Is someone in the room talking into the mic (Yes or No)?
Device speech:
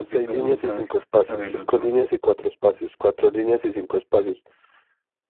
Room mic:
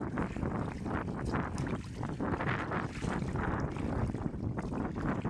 No